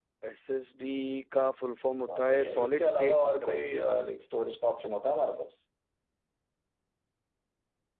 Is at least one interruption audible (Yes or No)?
Yes